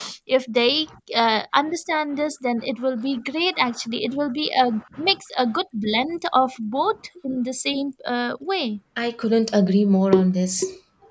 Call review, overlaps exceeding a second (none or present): none